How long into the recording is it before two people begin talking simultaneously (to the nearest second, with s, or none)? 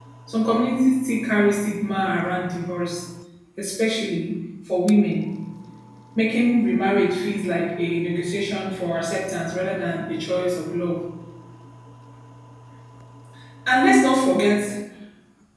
none